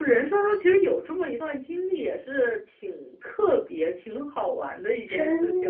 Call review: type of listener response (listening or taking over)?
taking over